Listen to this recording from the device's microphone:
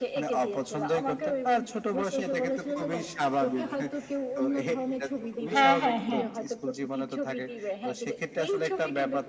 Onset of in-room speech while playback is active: 5.5 s

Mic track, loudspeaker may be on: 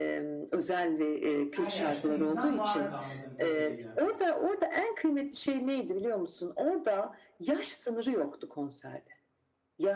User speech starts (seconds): 1.5 s

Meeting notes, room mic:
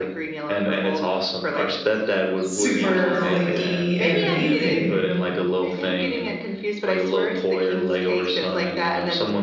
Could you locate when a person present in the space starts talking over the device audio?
2.4 s

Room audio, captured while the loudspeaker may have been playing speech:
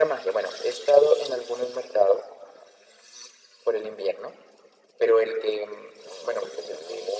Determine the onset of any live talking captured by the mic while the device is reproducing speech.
none

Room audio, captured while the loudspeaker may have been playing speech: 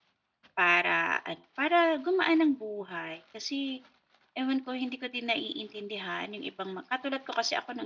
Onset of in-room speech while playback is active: 0.6 s

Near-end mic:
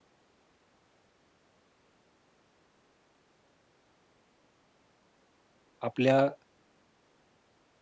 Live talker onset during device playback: 5.8 s

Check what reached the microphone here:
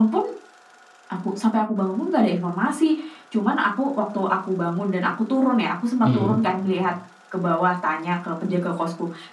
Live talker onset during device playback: 6.0 s

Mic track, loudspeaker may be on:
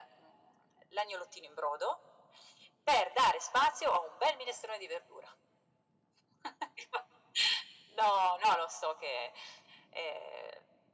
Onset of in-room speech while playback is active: none

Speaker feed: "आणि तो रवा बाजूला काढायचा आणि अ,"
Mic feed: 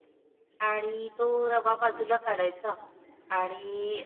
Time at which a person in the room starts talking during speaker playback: none

